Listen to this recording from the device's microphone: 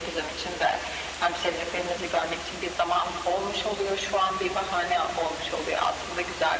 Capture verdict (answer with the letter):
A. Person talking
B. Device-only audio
B